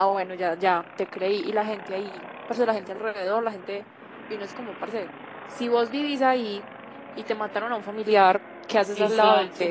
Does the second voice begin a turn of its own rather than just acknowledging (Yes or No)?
Yes